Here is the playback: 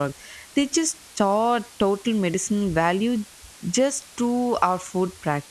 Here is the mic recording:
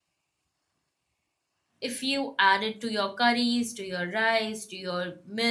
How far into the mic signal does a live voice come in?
1.8 s

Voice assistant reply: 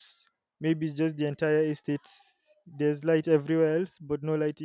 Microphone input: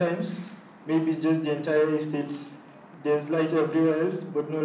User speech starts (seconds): none

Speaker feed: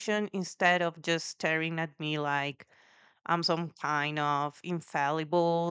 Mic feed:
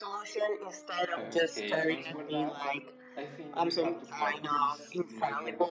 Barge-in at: 1.2 s

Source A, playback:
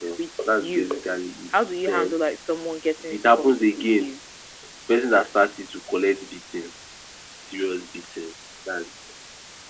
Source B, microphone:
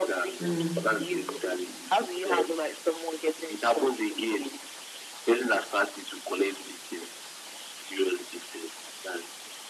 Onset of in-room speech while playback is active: 0.4 s

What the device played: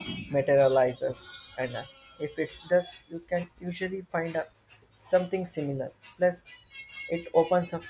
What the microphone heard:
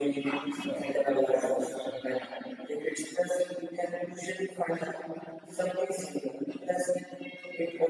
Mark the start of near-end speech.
0.4 s

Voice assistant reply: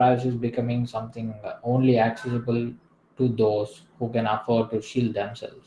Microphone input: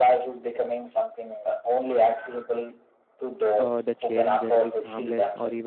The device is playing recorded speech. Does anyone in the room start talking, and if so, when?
3.6 s

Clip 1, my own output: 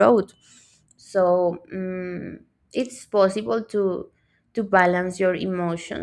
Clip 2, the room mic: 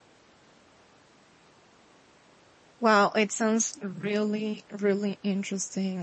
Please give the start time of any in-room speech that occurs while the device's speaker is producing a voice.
2.8 s

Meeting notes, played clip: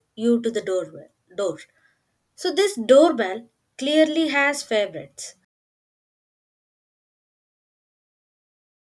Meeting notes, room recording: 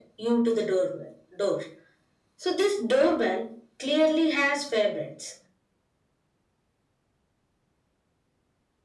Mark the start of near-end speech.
none

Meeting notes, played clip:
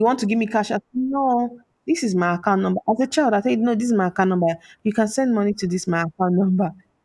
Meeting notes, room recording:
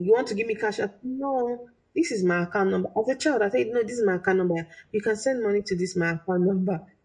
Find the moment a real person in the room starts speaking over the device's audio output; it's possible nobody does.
none

